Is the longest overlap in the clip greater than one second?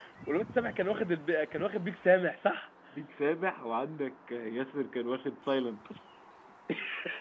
No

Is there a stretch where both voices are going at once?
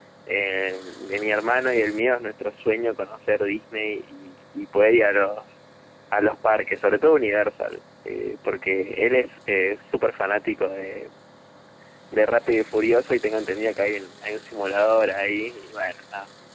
No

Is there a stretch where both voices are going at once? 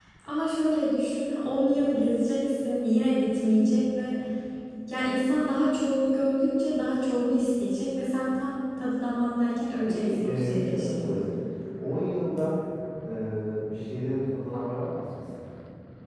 Yes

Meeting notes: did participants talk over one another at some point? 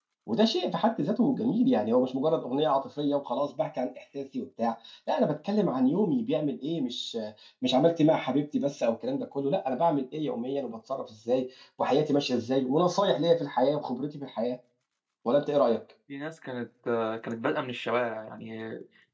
No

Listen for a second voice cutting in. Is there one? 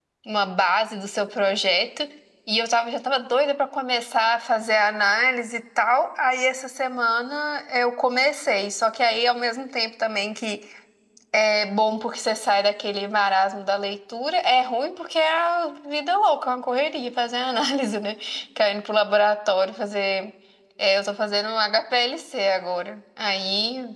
No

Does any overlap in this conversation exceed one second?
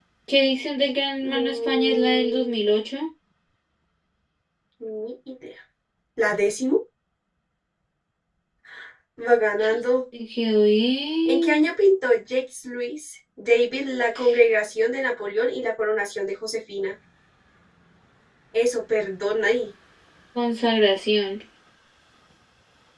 Yes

